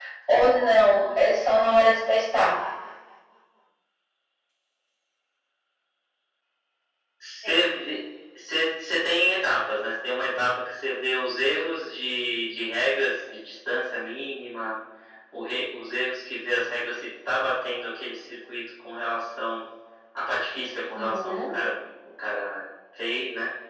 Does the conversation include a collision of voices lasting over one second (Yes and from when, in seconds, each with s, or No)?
No